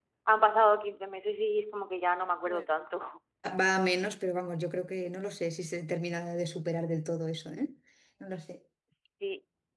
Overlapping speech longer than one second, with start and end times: none

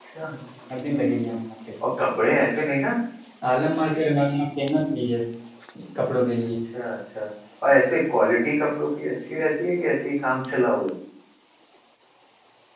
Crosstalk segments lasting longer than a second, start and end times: none

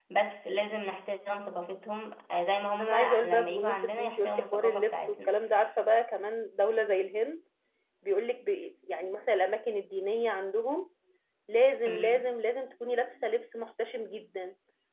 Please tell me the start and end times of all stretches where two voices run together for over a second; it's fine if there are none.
2.8-5.4

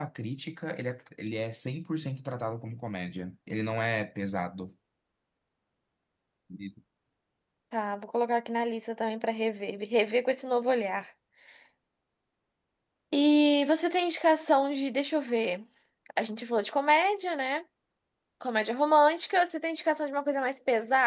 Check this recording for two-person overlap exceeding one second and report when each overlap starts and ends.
none

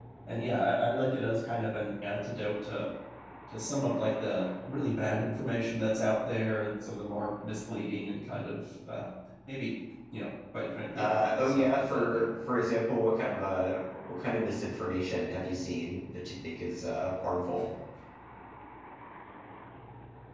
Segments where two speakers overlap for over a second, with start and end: 10.9-12.2

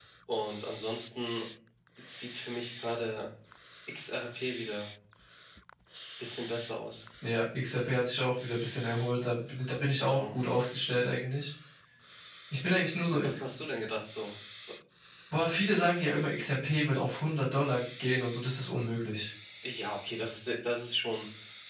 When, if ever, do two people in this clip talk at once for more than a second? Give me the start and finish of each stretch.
none

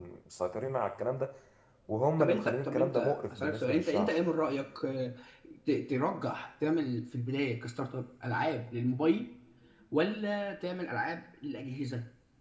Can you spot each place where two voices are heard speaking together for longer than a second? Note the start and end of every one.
2.2-4.1

